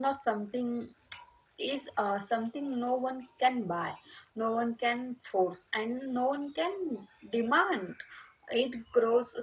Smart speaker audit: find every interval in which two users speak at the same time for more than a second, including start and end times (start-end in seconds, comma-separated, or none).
none